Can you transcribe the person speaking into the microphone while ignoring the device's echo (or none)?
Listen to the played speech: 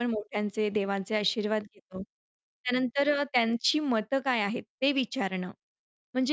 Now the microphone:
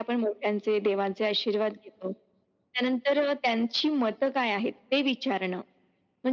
none